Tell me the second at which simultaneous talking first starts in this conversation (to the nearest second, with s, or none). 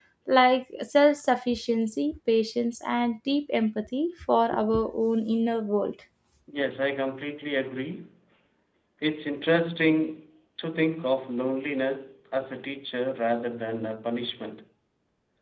none